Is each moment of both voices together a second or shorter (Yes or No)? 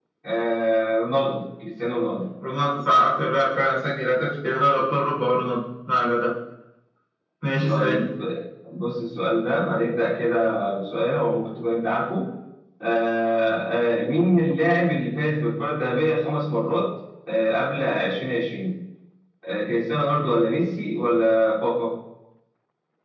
Yes